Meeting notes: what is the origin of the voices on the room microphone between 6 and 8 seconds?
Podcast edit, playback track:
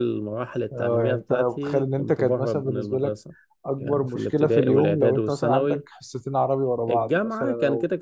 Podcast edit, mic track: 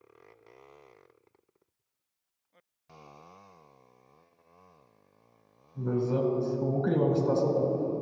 user only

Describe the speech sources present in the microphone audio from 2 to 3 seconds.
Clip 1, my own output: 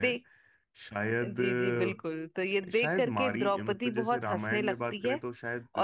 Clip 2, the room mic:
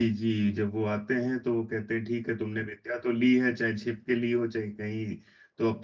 user only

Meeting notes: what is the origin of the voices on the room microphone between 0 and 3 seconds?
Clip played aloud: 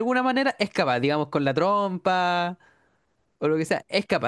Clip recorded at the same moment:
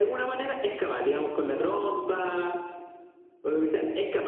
echo only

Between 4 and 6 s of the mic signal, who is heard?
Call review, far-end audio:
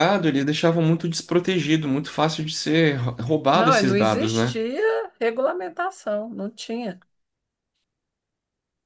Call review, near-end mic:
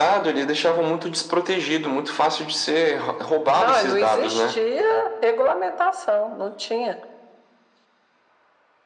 echo only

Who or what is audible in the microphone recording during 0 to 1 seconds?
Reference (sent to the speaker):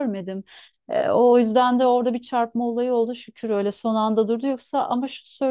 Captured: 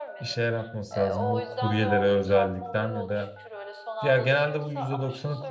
both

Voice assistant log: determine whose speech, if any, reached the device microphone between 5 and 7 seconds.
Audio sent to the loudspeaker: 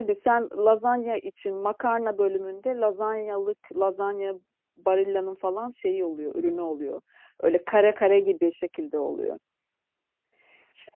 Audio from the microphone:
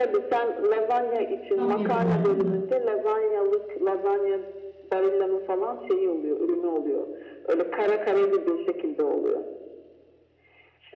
echo only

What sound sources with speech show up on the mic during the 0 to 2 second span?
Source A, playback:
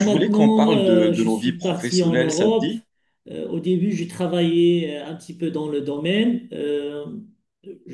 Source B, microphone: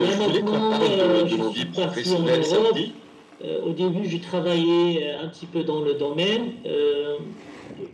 echo only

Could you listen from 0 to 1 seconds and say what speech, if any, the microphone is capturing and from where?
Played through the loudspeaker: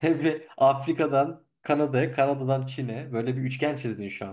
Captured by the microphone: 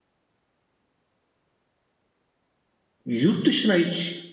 neither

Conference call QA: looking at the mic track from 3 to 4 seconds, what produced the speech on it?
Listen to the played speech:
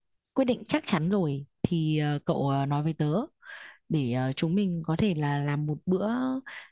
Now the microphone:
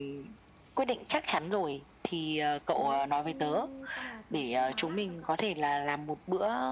both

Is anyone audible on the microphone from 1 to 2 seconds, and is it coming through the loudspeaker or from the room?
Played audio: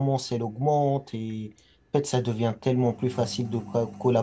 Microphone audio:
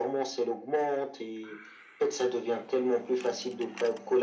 echo only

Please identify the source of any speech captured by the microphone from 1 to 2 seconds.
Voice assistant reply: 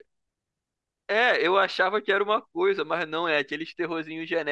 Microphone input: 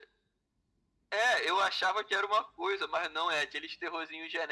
echo only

